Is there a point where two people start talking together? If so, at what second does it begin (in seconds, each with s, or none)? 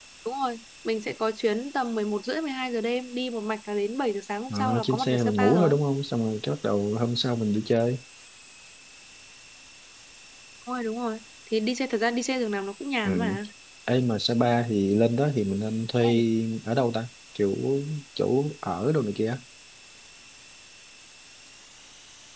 4.5 s